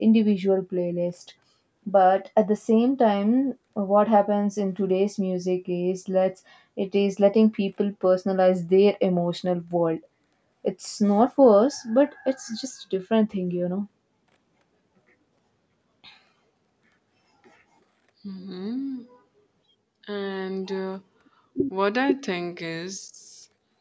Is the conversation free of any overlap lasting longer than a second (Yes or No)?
Yes